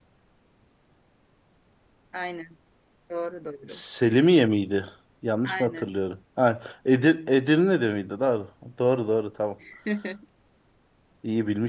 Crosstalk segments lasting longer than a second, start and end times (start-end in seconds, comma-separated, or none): none